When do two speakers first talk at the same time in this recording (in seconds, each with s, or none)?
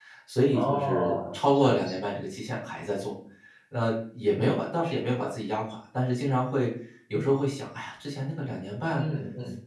0.5 s